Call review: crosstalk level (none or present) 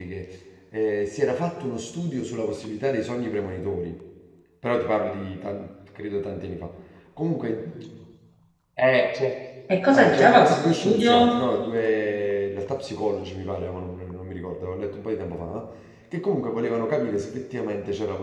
present